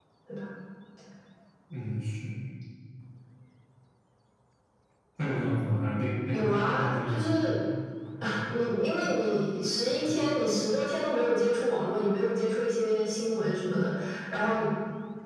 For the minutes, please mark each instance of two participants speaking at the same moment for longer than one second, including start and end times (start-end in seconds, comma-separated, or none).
6.3-7.6